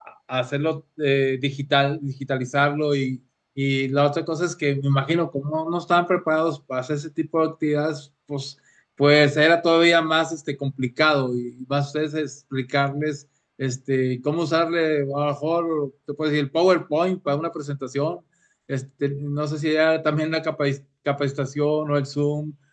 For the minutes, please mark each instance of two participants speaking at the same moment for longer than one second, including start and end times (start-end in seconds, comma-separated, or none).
none